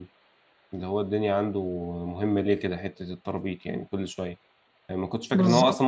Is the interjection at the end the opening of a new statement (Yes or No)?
No